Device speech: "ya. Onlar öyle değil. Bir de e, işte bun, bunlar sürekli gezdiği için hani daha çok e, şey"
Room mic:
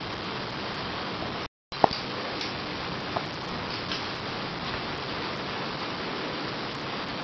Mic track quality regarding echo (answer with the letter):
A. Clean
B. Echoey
A